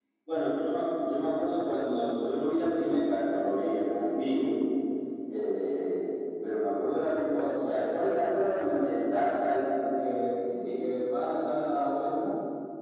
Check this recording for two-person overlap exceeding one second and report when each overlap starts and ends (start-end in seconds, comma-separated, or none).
none